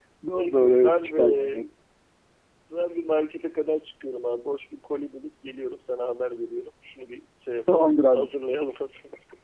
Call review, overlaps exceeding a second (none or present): present